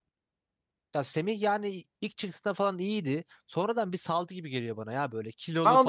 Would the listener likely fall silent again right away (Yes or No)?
No